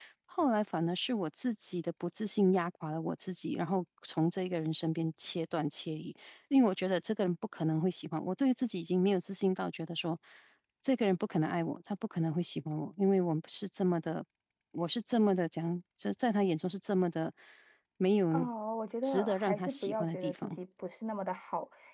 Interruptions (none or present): present